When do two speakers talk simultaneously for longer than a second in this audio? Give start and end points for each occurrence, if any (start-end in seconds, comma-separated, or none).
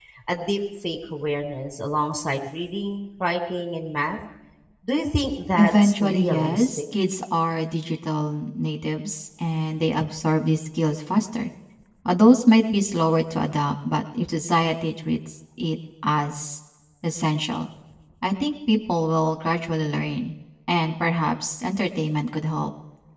5.6-6.8